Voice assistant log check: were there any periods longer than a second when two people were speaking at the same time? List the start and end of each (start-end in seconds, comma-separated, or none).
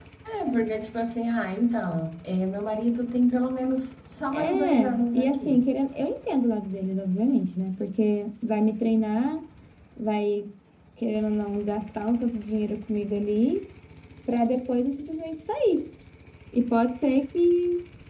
4.3-5.6